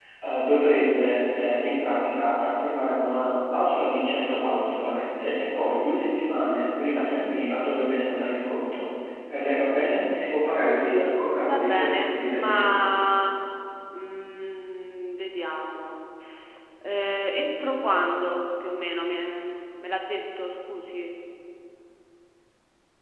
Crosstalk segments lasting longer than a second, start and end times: 10.8-12.7

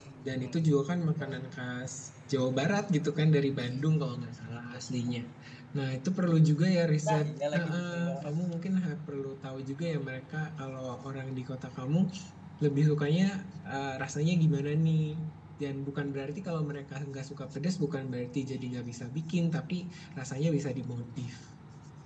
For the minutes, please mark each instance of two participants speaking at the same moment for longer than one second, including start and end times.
7.1-8.3

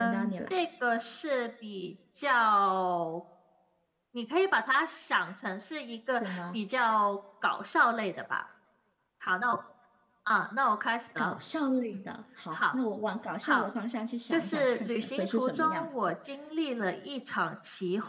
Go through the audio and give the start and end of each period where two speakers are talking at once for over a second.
14.3-15.9

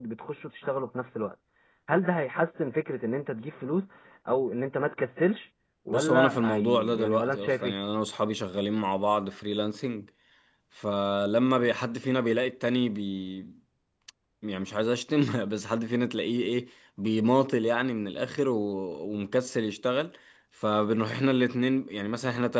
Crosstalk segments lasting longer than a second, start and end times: 5.9-7.7

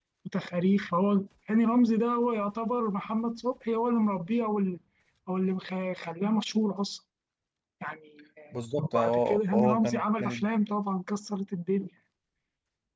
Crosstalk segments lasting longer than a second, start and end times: 8.8-10.4

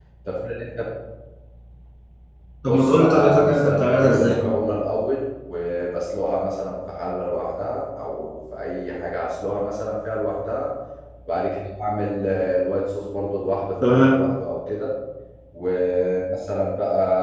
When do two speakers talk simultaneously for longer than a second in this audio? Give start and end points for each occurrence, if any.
2.7-4.4

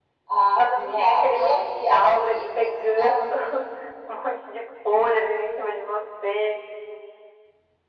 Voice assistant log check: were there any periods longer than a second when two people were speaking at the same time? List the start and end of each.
0.6-2.4

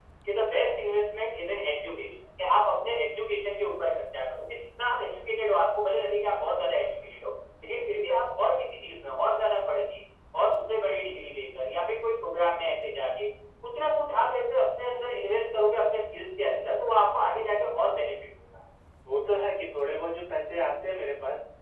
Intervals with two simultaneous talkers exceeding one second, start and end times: none

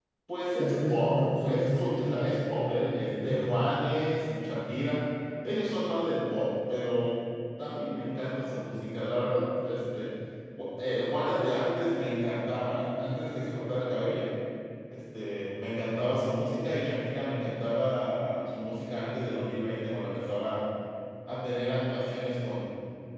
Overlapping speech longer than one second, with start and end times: 0.6-2.1

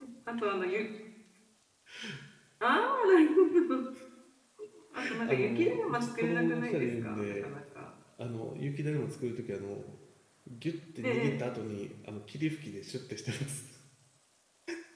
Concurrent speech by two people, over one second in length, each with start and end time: 5.2-7.5

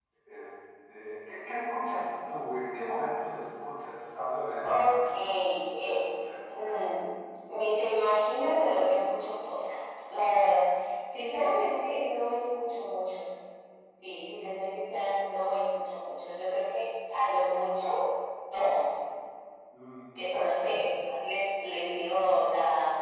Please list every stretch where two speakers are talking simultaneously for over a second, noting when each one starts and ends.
4.6-6.0

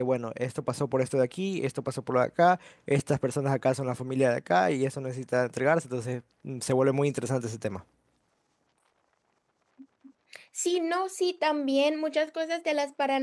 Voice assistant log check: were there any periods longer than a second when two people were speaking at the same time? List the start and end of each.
none

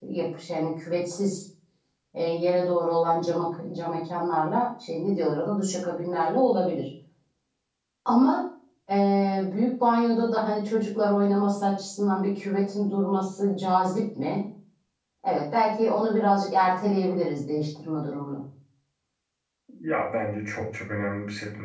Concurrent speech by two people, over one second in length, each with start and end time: none

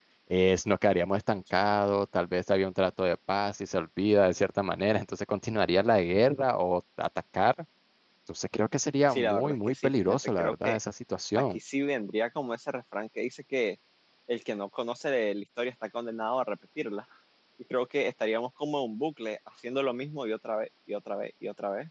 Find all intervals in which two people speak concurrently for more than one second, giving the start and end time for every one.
9.1-10.8

